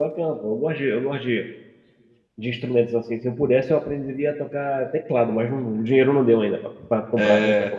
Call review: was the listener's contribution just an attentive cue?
No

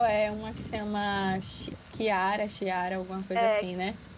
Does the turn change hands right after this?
Yes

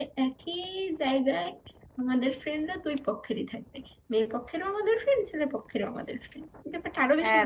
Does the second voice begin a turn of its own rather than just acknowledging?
Yes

